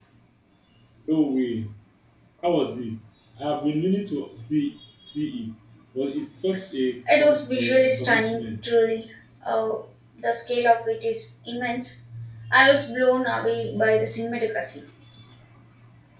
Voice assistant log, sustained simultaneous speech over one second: present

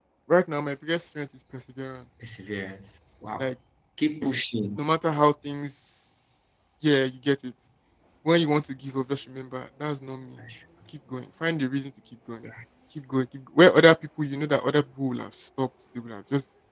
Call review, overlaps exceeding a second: none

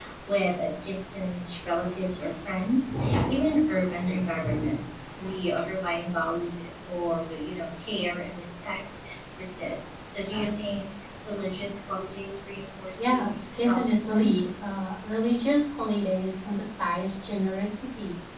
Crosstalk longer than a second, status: present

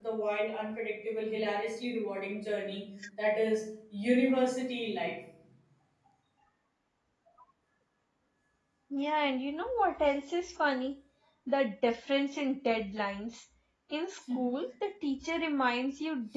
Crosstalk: none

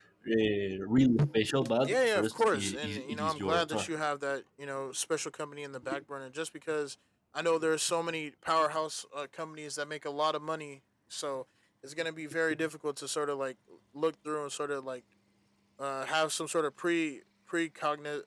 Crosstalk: present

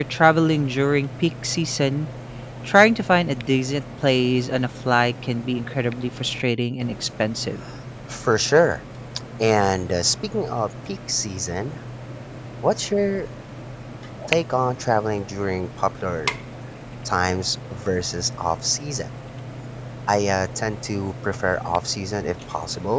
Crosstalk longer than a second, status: none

